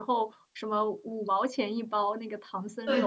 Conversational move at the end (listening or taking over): taking over